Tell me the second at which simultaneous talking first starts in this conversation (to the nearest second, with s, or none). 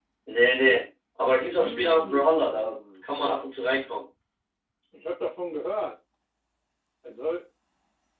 2 s